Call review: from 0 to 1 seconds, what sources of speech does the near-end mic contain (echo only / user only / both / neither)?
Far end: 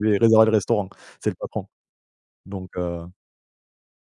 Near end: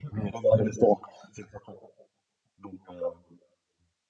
echo only